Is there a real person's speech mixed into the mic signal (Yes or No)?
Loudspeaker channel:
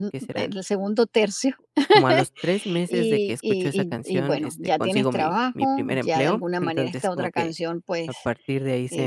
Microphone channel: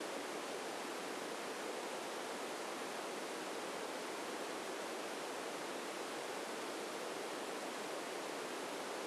No